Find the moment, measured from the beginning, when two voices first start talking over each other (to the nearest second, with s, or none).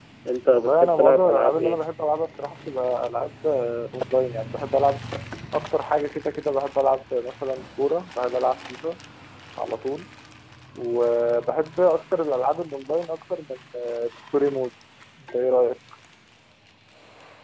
1 s